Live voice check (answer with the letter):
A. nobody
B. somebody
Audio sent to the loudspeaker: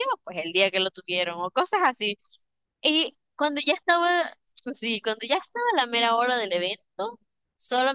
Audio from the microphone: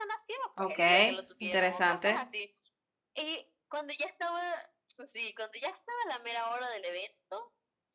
B